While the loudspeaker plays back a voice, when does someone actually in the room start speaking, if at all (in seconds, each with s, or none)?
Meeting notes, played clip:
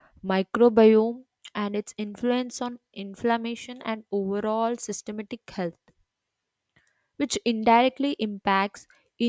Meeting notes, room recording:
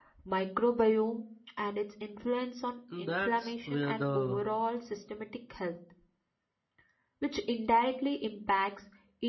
2.9 s